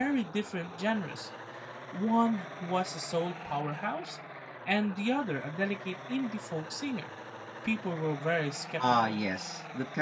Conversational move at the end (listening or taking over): taking over